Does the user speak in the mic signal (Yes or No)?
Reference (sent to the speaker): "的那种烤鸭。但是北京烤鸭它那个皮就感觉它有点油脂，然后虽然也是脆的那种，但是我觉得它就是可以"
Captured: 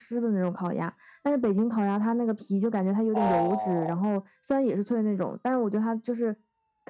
Yes